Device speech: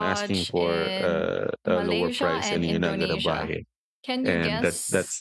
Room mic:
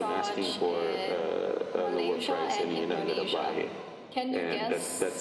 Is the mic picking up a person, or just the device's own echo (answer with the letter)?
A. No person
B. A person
A